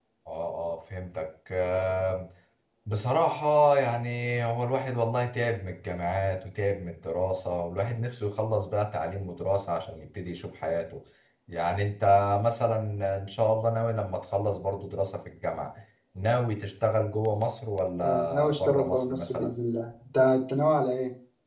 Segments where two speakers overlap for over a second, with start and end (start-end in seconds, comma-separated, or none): 18.0-19.5